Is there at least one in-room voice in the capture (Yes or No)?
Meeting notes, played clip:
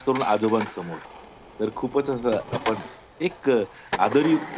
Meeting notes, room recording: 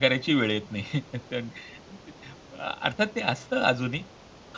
Yes